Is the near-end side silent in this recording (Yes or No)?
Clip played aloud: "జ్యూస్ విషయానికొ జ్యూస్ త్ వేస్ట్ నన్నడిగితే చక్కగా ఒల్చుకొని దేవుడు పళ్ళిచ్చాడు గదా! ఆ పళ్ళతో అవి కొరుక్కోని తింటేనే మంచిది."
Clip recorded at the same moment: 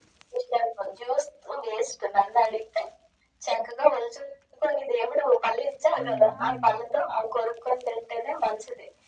No